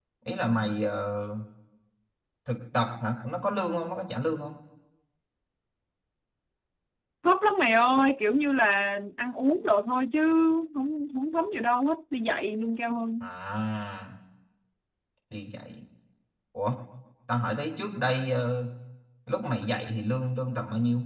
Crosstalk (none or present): none